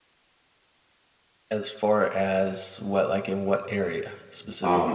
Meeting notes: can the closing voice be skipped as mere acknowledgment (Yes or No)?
No